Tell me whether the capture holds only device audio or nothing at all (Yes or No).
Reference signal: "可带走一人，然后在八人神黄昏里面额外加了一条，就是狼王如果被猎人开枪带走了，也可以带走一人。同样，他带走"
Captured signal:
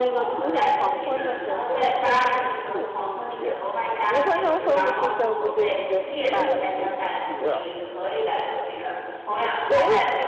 No